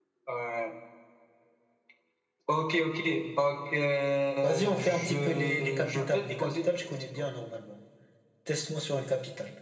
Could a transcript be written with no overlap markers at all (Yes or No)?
No